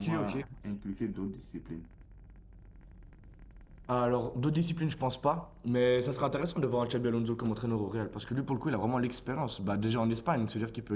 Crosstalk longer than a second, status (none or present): none